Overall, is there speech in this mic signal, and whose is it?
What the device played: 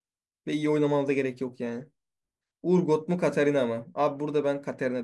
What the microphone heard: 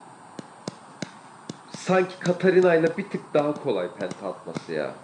user only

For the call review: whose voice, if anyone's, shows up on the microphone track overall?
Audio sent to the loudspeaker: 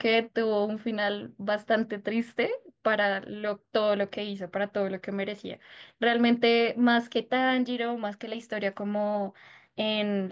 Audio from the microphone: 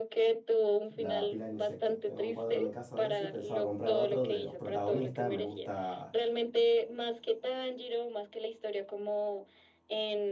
both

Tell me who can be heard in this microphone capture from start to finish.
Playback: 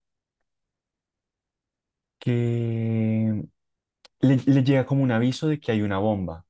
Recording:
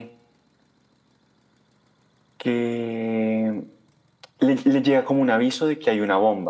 echo only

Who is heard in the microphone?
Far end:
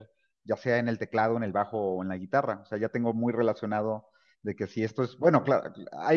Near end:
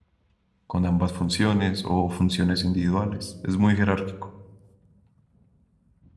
user only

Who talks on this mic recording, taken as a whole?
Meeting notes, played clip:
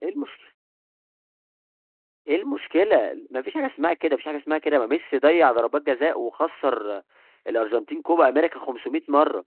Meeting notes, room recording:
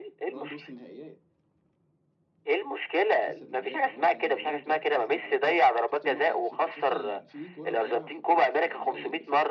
both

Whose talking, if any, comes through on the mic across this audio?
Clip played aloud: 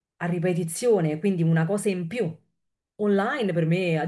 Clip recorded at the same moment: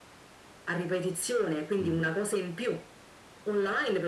both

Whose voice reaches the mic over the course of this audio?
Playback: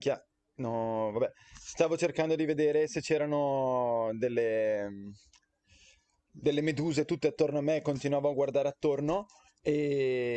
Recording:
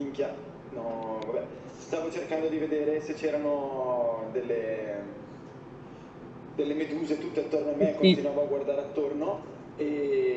both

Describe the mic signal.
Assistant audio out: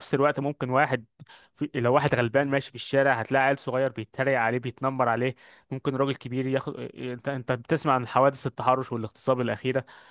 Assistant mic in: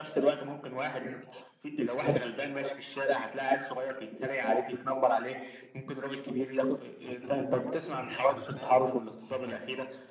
both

